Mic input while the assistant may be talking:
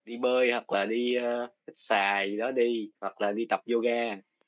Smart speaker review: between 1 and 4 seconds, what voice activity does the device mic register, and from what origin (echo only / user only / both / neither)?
user only